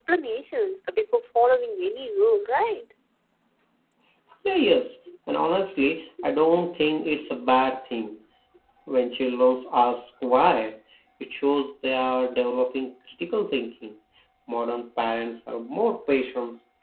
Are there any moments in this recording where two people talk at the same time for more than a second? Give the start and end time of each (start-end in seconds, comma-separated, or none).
none